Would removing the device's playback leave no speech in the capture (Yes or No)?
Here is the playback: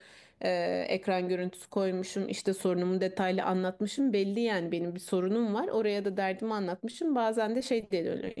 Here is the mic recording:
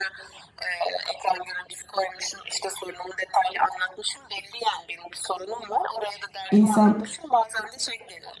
No